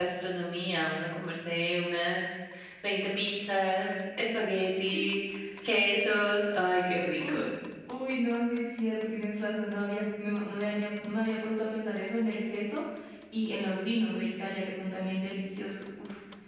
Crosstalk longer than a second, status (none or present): none